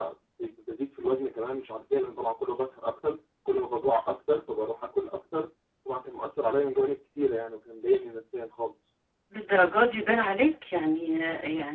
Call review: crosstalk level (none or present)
none